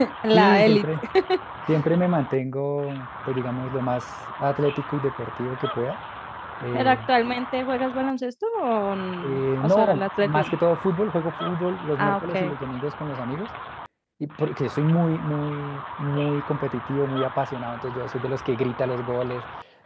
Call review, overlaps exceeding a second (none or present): present